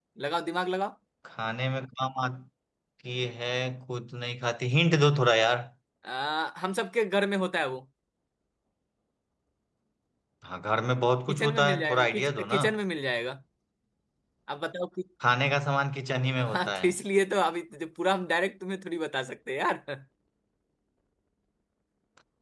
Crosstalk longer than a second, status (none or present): present